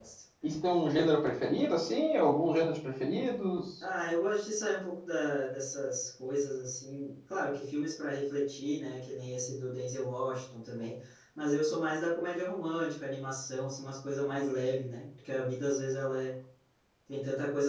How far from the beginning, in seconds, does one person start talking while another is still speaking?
none

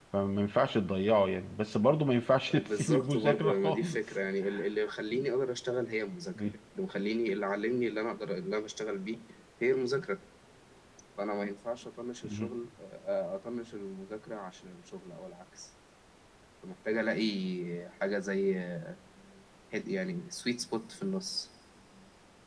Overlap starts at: 2.5 s

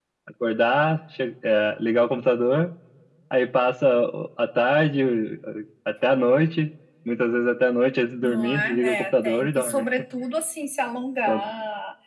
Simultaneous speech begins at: 8.2 s

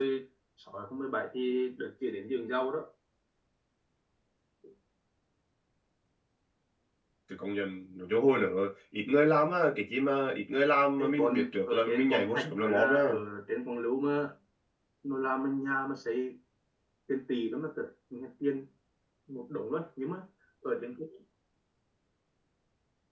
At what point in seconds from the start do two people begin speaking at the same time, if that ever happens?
11.0 s

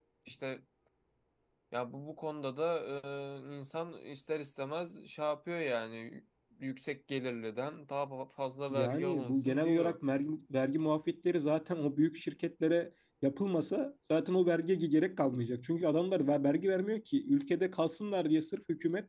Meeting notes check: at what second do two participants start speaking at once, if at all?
8.7 s

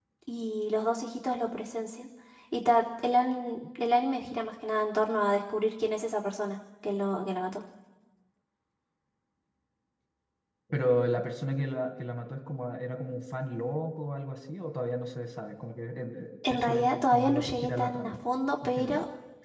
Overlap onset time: 16.5 s

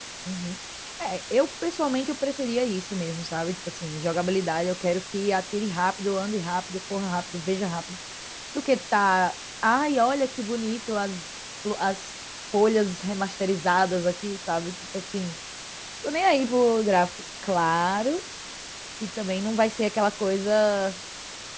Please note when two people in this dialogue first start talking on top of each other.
none

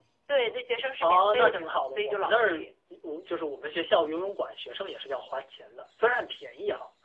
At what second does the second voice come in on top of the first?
1.0 s

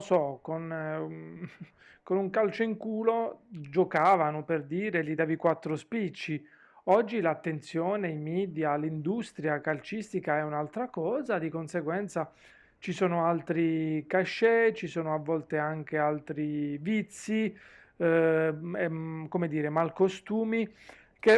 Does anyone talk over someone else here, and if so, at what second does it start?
none

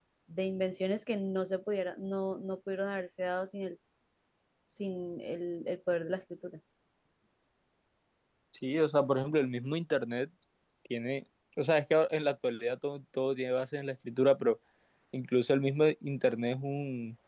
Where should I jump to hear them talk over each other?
none

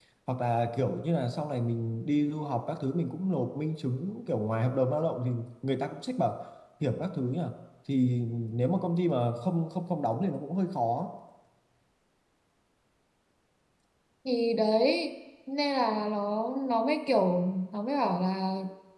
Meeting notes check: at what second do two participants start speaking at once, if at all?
none

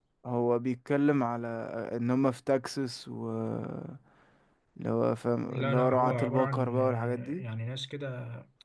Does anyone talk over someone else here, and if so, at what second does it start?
5.5 s

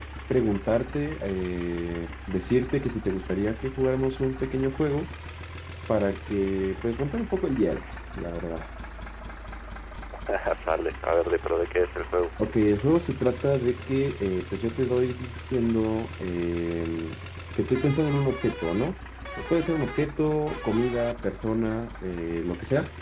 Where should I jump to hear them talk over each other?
none

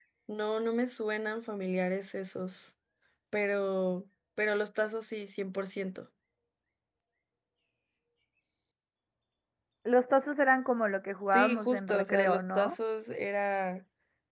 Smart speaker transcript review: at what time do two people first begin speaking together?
11.2 s

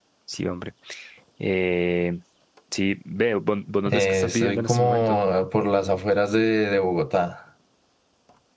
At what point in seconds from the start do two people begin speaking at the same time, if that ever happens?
3.9 s

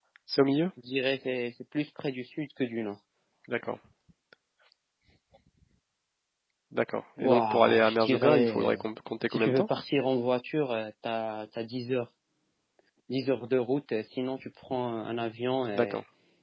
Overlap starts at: 7.2 s

